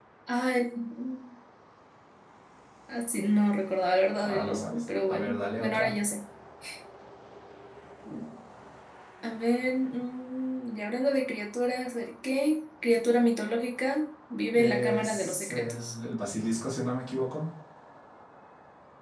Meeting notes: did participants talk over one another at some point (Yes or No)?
Yes